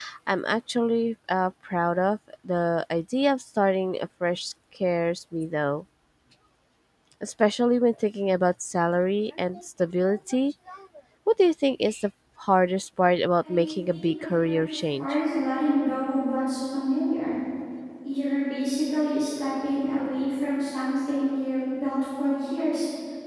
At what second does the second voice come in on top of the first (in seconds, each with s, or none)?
13.4 s